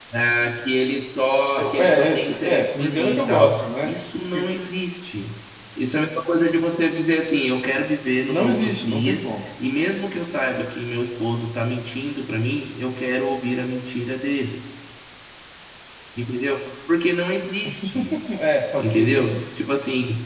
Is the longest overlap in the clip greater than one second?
Yes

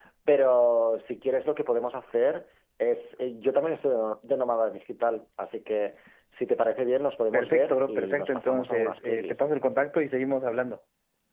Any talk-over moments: Yes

